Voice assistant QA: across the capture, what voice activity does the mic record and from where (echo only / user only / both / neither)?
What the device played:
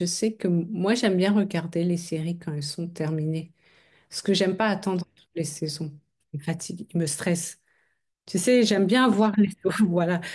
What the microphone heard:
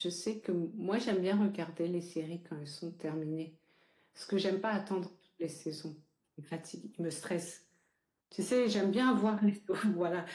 echo only